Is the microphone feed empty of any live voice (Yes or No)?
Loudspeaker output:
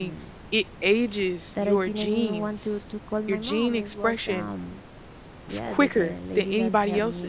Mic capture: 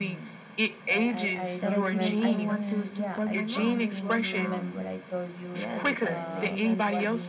No